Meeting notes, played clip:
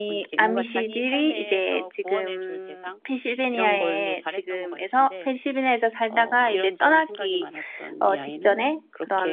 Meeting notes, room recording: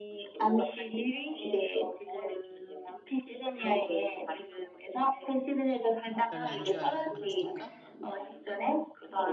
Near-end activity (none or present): present